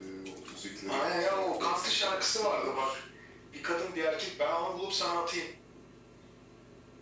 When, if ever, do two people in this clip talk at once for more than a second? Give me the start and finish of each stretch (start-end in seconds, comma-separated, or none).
0.9-2.9